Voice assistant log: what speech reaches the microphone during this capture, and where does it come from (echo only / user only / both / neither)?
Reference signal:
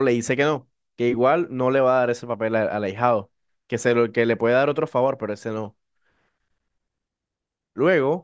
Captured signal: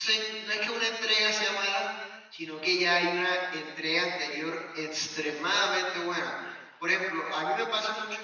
user only